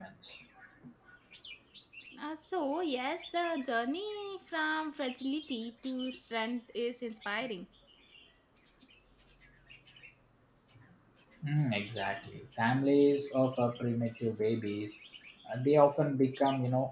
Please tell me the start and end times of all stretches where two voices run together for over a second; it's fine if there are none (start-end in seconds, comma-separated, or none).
none